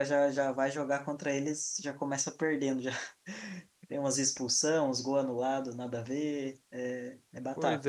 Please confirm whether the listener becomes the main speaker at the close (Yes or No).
Yes